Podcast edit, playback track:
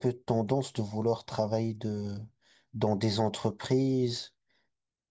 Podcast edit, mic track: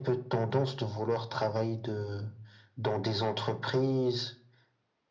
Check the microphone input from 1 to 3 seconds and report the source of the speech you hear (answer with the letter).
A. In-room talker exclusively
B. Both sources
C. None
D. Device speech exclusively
D